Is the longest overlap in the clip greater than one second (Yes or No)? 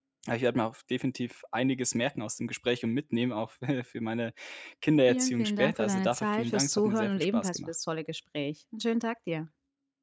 Yes